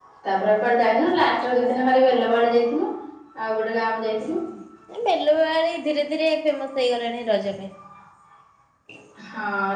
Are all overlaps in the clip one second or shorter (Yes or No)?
Yes